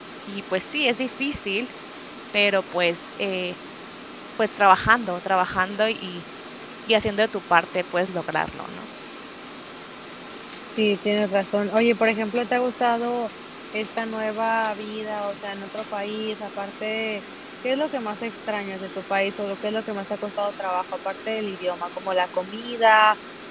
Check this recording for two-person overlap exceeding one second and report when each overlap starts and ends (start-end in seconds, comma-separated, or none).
none